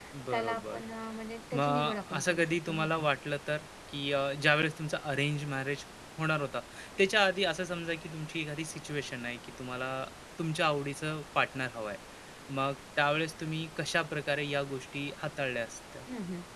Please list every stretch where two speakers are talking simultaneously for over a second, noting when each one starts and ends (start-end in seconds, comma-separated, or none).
1.6-3.0